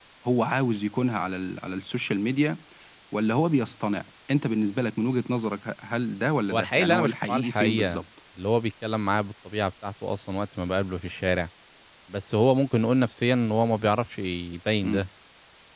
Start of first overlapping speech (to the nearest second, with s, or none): 6 s